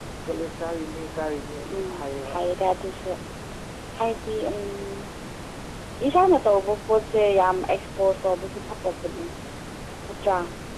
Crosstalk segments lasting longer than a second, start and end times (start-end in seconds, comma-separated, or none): none